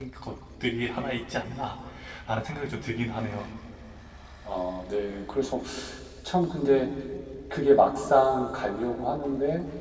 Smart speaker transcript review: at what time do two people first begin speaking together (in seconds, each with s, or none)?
none